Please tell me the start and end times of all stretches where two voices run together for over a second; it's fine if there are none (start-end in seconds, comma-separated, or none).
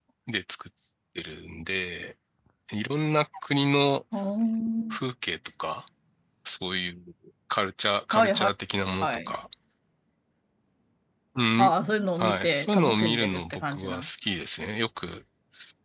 12.2-14.1